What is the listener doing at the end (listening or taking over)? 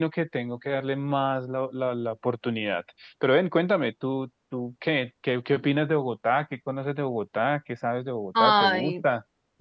taking over